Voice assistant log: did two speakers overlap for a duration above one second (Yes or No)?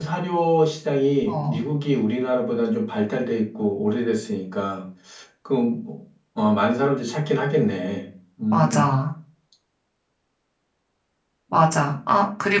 No